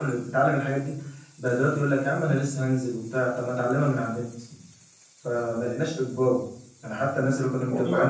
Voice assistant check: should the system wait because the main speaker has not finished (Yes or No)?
Yes